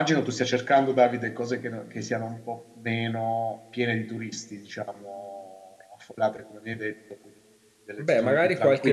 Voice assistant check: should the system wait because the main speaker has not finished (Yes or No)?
No